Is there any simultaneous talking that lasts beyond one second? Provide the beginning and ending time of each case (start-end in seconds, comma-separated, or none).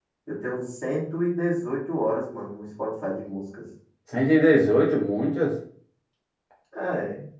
none